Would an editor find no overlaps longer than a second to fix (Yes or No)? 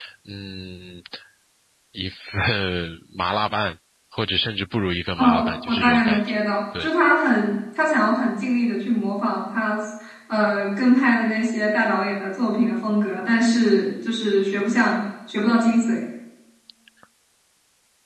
No